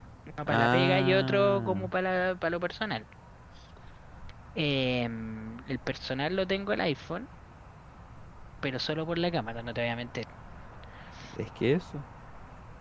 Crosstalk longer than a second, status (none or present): present